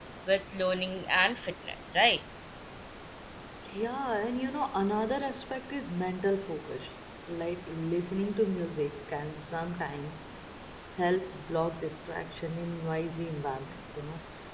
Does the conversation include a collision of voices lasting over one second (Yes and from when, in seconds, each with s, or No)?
No